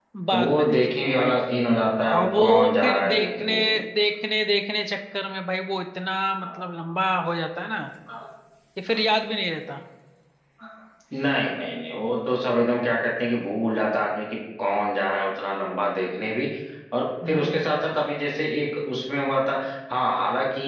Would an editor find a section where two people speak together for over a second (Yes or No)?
Yes